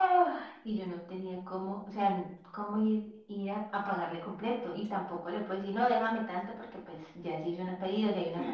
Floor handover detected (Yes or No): Yes